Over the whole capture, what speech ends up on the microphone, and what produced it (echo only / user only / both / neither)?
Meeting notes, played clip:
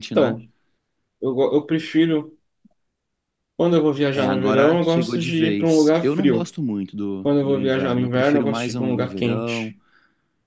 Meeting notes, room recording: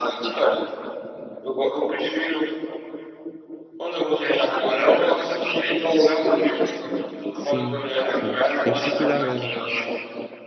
both